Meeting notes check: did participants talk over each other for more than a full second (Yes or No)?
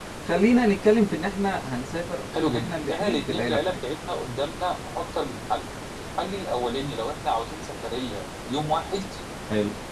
Yes